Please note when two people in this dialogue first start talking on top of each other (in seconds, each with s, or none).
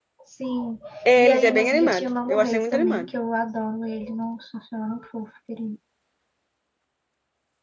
1.2 s